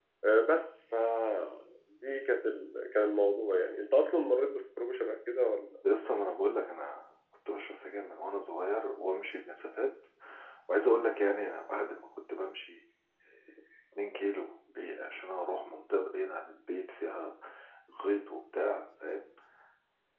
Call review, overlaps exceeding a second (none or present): none